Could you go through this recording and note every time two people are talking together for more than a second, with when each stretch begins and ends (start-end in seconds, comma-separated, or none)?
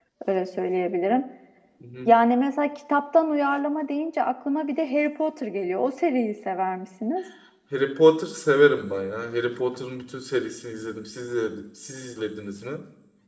none